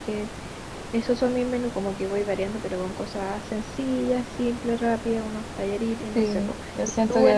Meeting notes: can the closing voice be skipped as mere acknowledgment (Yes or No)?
No